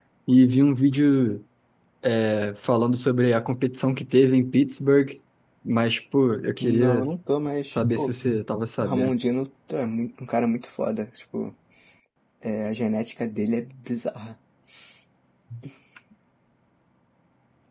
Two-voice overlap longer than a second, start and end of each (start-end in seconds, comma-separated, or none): none